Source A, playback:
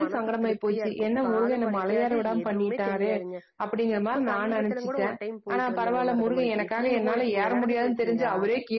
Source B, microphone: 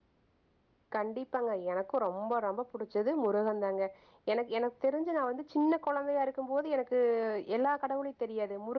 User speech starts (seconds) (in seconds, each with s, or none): 0.9 s